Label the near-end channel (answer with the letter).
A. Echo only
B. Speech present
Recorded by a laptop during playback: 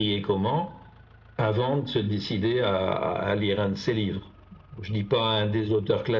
A